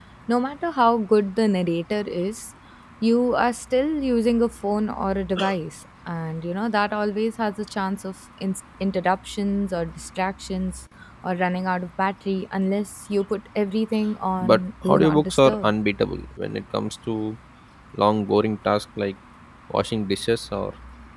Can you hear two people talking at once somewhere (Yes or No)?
Yes